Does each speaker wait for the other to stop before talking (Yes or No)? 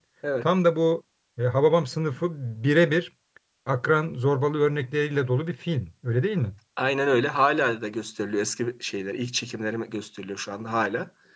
Yes